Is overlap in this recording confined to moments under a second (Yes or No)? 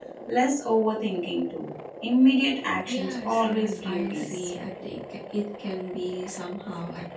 No